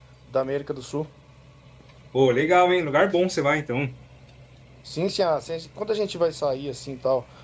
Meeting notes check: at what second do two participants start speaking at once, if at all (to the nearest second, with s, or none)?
none